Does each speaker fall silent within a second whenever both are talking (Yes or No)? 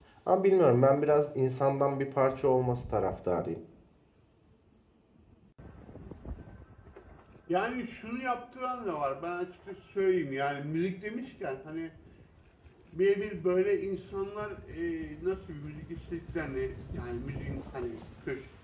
Yes